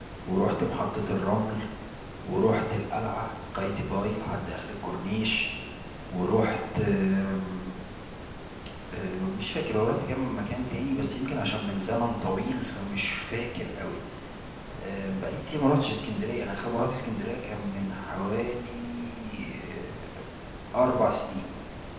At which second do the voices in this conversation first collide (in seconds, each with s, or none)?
none